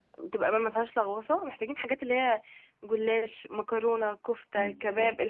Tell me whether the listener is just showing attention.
Yes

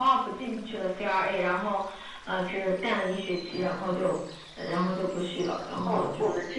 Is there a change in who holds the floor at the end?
Yes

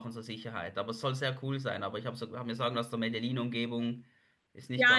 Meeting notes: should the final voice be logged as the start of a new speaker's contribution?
Yes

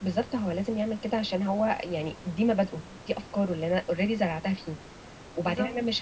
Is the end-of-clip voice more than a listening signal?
No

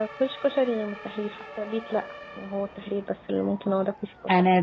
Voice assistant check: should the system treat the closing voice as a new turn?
Yes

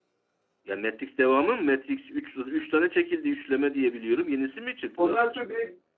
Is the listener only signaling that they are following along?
No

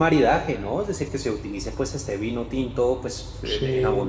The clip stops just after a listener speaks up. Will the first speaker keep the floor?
Yes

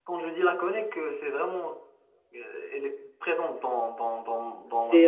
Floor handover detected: Yes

